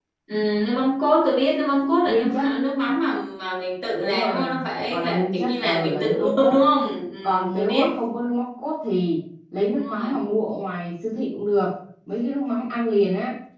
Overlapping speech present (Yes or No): Yes